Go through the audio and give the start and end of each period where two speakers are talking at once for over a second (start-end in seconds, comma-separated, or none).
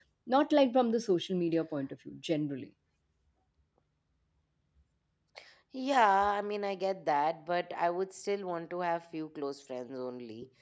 none